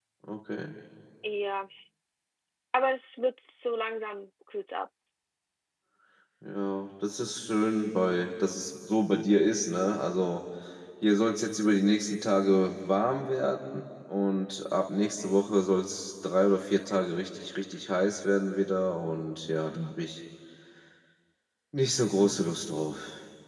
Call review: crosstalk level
none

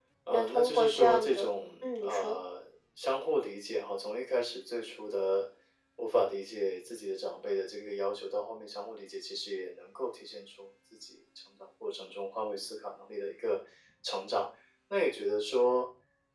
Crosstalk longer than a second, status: present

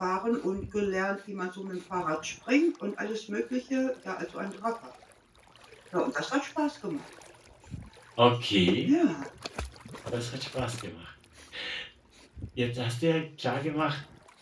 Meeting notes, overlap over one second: none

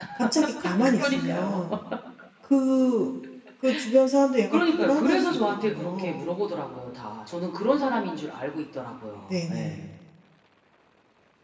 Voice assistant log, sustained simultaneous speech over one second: present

